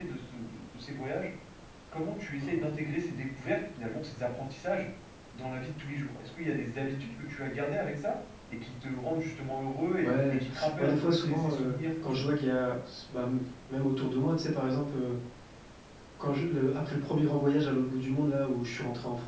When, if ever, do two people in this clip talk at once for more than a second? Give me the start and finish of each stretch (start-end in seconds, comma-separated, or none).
10.0-12.2